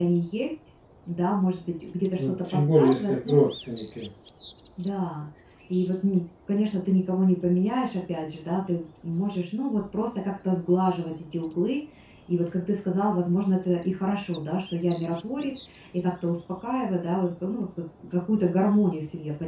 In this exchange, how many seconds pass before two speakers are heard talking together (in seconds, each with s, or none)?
2.2 s